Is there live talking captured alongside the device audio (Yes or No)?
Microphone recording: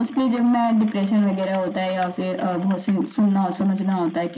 No